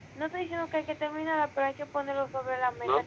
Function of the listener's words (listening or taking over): taking over